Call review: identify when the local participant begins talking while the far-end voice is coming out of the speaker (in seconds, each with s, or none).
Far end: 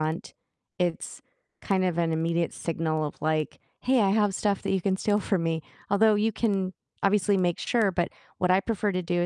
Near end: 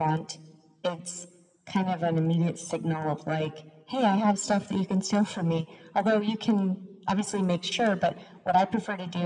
none